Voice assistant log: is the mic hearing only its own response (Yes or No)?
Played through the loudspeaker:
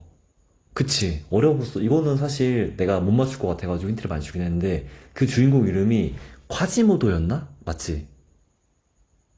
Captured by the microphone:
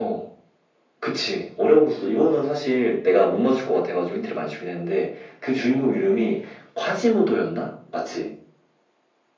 Yes